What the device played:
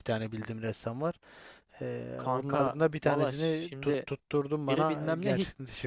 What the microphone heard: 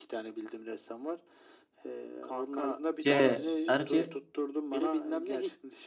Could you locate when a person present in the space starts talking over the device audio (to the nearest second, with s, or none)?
3 s